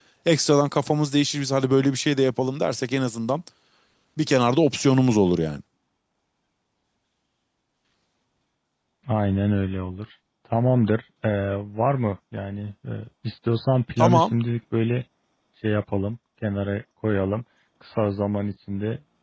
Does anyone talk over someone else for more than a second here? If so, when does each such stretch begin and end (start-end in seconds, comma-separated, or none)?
none